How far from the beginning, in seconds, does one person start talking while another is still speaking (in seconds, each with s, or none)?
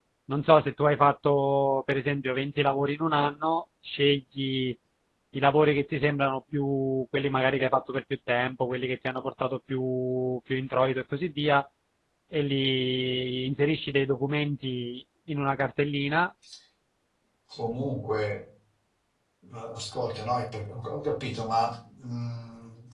none